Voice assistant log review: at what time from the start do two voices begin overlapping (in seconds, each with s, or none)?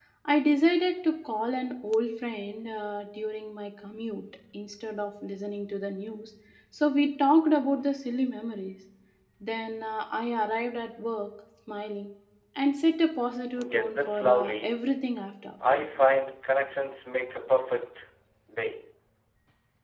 13.6 s